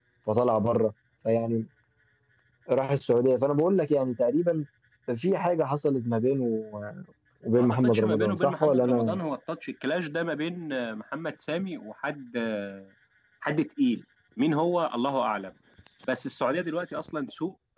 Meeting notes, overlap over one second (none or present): present